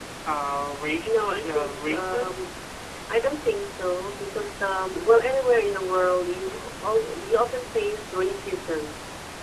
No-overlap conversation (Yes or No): No